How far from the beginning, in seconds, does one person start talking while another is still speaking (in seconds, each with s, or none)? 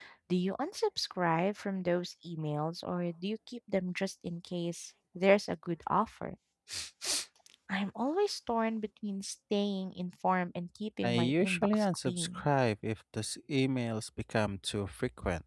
11.0 s